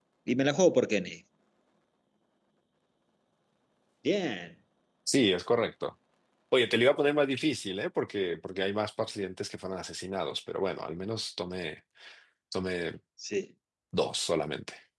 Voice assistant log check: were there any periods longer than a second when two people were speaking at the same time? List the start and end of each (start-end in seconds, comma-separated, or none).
none